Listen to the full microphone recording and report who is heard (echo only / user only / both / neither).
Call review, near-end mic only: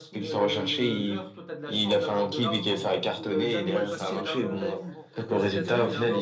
both